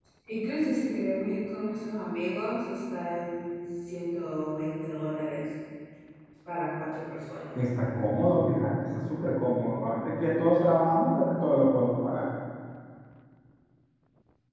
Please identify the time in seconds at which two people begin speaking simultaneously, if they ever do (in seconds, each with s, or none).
none